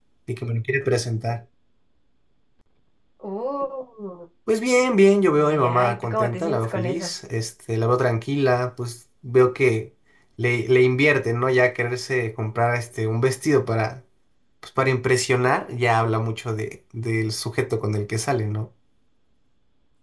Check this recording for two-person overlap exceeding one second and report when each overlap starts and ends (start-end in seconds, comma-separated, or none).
5.5-7.1